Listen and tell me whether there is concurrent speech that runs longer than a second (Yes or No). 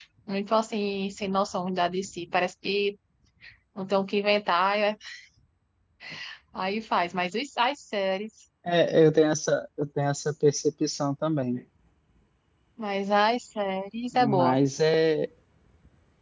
No